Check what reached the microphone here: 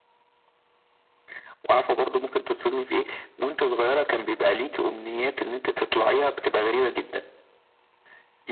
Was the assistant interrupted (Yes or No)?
No